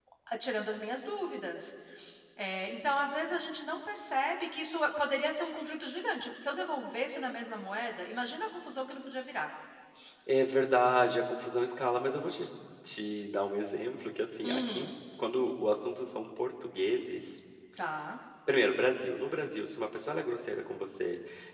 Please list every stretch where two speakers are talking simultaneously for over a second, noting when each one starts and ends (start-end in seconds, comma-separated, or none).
none